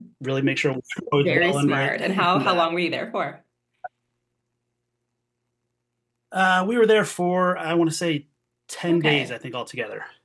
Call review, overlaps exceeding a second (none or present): present